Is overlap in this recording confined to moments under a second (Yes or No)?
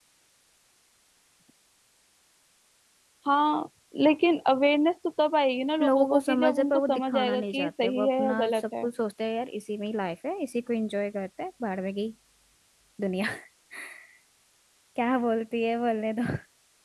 No